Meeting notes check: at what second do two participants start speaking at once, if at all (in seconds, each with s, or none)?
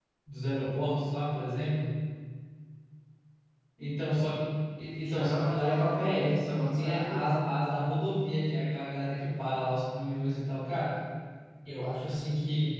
5.0 s